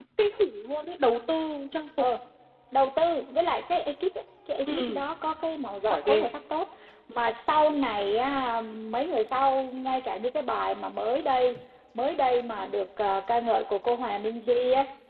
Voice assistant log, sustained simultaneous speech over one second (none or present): none